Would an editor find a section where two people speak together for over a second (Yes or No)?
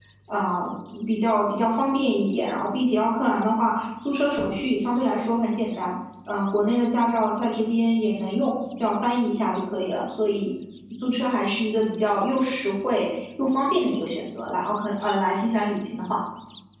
No